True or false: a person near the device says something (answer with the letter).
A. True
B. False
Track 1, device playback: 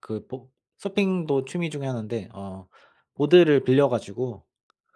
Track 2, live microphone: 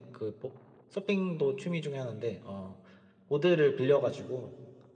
B